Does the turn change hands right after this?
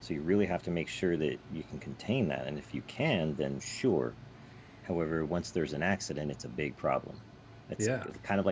No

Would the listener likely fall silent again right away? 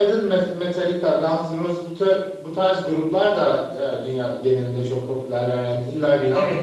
No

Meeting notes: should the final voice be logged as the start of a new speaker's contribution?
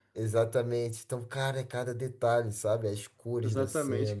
Yes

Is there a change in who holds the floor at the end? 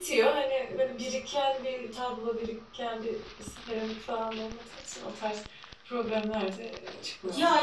Yes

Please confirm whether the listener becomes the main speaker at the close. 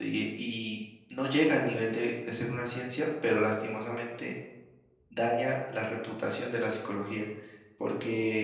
No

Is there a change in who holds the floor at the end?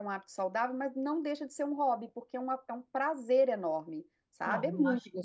Yes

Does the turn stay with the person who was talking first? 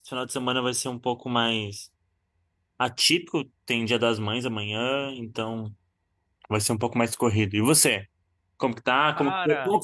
Yes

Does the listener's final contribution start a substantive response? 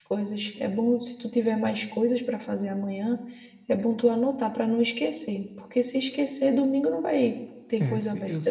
Yes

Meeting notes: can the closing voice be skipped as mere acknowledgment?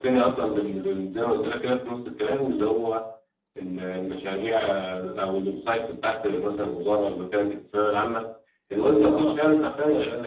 Yes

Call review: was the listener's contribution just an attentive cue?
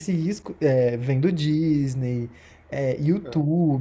Yes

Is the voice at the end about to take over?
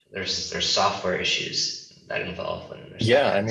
Yes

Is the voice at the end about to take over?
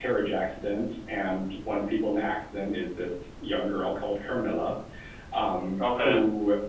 No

